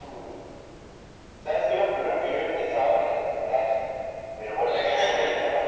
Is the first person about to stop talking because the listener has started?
No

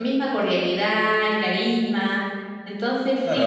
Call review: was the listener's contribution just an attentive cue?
No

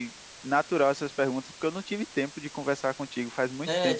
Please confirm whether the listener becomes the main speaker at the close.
Yes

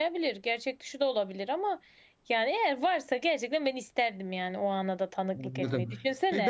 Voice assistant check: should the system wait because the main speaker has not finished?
No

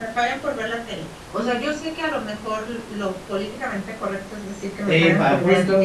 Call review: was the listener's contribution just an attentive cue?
No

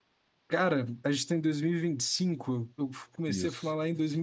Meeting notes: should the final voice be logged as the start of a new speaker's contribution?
No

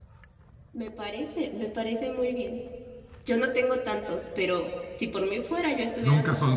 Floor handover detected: Yes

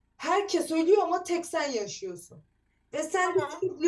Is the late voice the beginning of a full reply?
No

